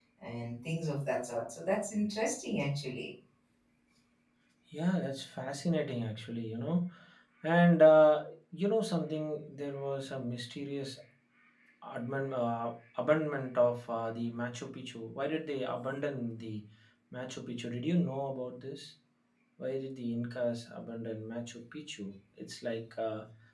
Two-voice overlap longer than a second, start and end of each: none

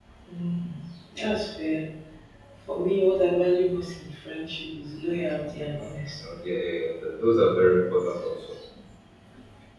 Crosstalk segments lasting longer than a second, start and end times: none

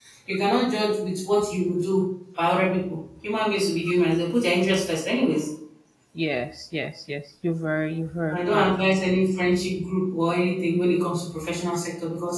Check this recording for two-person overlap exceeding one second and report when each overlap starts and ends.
none

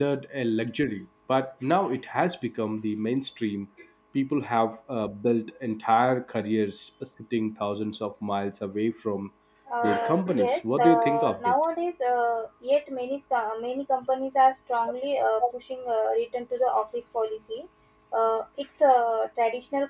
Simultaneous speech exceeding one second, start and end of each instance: 9.8-11.5

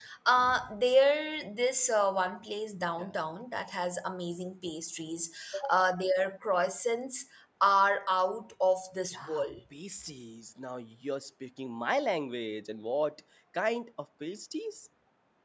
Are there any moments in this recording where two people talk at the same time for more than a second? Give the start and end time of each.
none

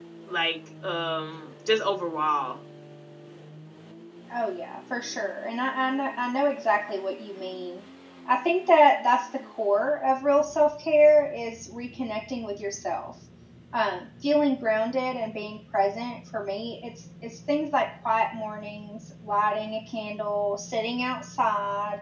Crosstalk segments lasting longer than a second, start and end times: none

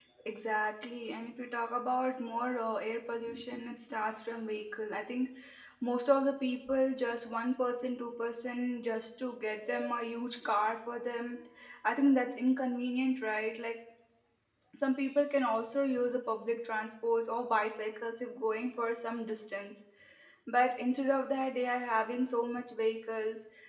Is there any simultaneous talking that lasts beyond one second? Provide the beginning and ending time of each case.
none

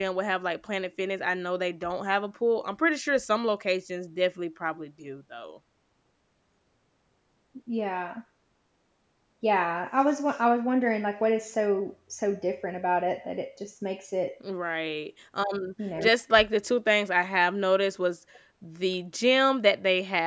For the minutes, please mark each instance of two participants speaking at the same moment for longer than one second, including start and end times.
none

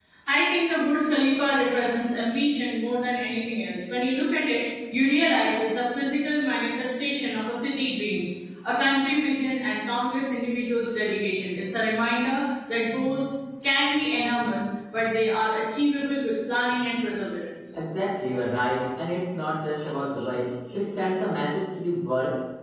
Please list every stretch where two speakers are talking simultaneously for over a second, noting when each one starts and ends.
none

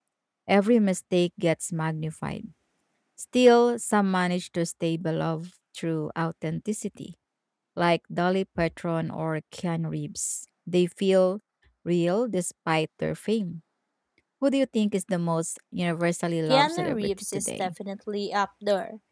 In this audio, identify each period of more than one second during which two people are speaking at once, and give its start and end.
16.5-17.7

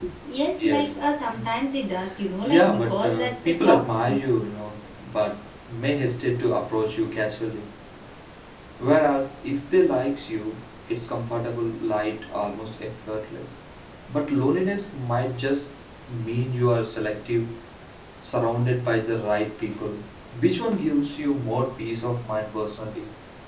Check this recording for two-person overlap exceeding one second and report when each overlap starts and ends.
2.4-4.2

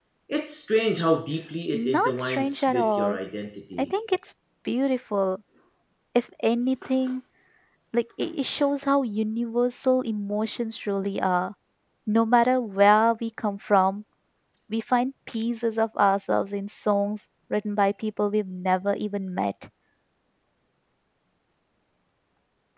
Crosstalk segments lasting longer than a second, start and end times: 1.7-3.2

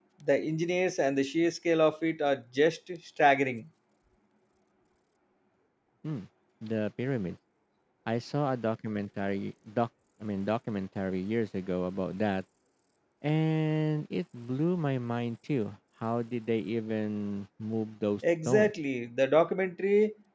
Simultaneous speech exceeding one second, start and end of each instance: none

